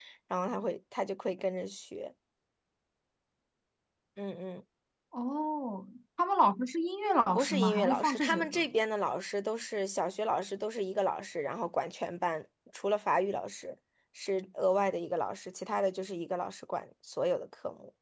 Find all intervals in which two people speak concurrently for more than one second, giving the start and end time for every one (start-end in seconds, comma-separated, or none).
7.3-8.6